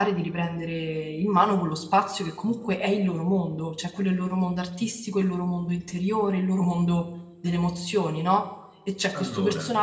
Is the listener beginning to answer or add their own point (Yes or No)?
No